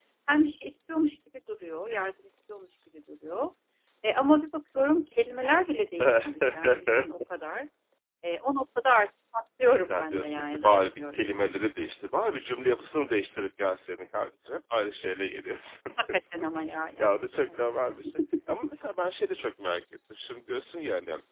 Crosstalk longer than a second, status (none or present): present